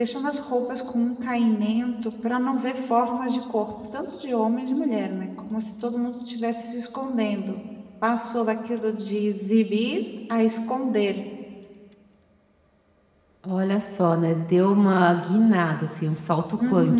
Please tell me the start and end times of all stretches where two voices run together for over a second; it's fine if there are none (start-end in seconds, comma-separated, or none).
none